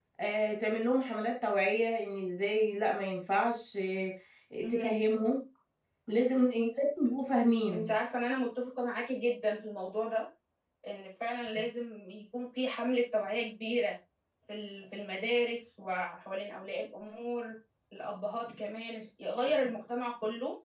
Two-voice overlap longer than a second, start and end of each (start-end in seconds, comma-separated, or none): none